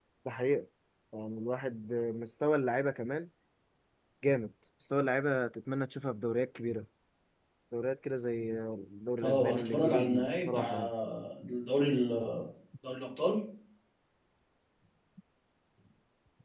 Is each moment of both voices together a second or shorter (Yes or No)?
No